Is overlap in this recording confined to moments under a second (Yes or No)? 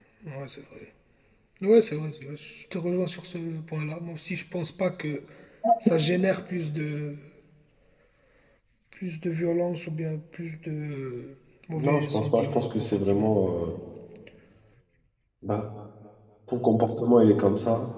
No